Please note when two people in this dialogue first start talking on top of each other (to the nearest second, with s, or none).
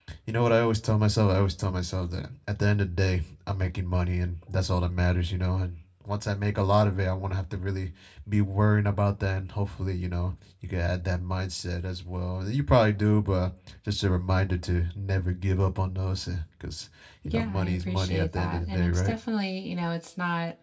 17 s